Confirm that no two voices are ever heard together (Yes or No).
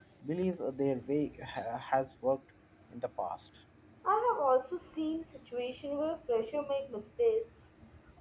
Yes